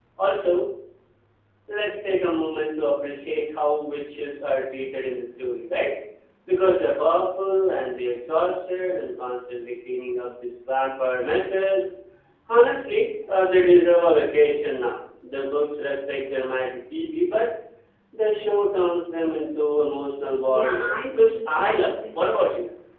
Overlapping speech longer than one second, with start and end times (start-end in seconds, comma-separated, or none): 20.4-22.3